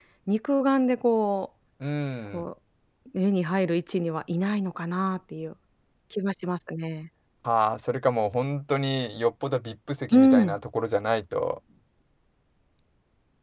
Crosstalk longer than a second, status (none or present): none